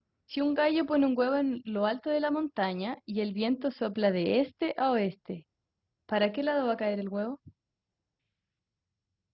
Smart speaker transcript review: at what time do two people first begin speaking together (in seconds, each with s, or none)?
none